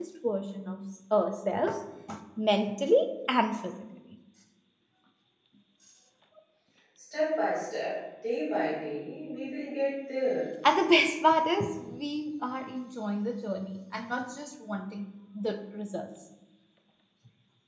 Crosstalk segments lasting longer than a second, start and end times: none

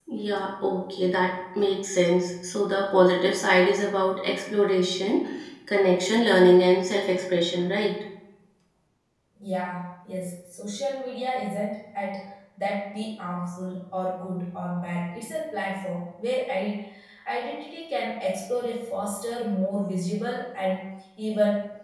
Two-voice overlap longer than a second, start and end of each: none

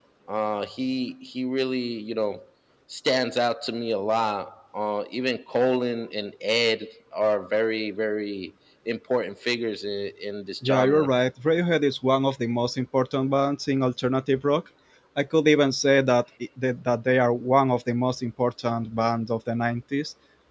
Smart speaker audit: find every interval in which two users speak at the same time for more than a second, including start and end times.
none

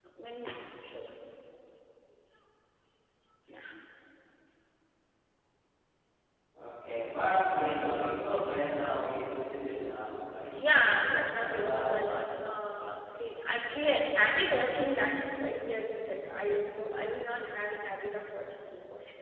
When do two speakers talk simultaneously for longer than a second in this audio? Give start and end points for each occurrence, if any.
10.6-12.1

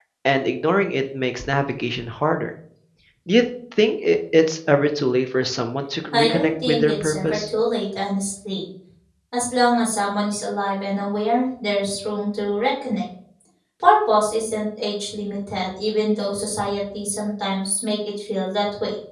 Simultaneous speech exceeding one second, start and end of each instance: 6.1-7.4

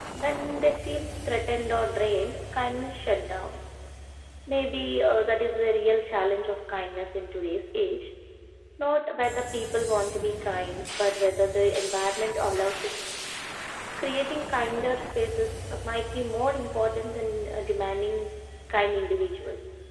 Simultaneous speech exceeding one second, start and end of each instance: none

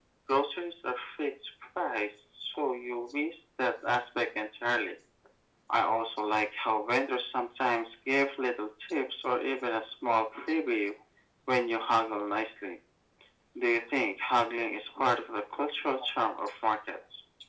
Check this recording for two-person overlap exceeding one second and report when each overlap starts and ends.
none

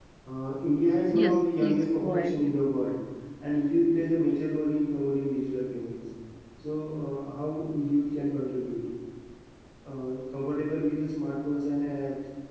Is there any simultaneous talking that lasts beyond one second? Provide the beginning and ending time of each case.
1.1-2.6

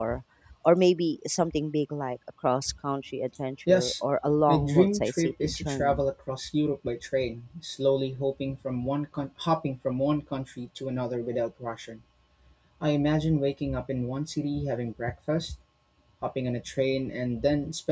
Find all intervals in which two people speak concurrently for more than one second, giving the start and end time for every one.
4.5-6.0

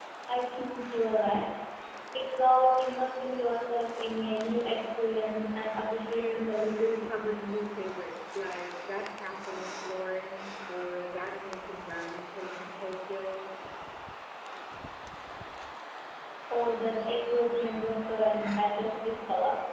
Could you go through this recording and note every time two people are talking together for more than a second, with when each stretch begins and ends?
6.2-7.4

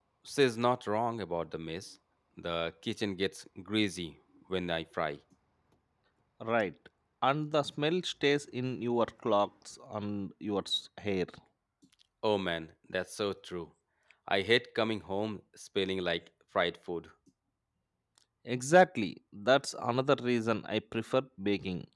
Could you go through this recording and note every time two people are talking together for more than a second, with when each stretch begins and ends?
none

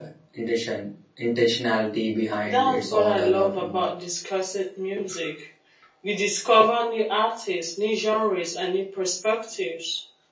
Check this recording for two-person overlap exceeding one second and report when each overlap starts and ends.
2.5-3.8

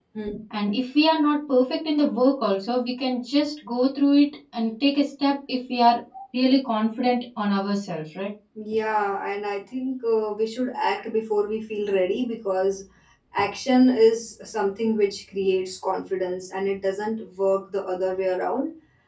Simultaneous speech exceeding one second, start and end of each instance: none

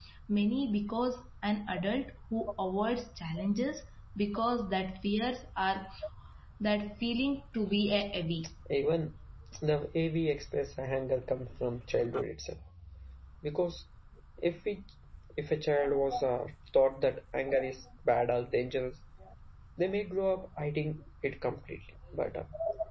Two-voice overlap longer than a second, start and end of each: none

